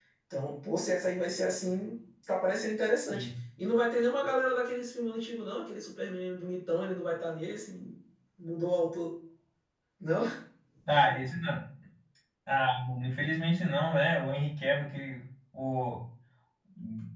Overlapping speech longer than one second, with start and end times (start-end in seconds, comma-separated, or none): none